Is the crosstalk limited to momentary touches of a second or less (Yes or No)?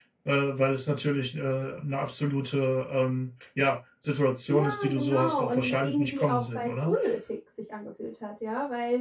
No